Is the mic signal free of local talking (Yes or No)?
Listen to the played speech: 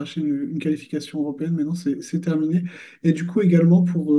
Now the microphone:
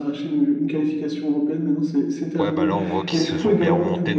No